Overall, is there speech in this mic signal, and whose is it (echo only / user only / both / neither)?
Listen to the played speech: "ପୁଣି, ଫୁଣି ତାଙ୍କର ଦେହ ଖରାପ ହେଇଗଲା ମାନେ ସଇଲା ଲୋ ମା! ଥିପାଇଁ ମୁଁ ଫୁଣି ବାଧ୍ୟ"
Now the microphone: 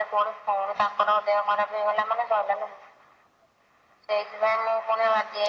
echo only